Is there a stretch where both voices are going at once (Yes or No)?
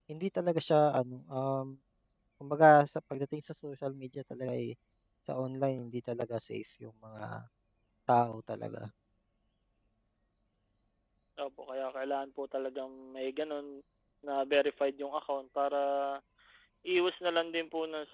No